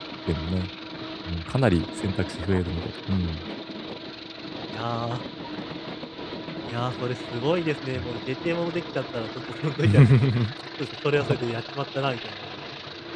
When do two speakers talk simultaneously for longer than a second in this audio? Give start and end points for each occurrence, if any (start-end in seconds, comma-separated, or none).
none